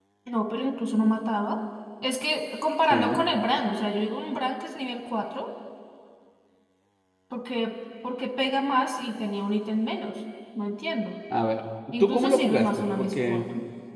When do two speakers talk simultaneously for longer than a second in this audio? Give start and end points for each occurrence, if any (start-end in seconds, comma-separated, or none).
12.0-13.4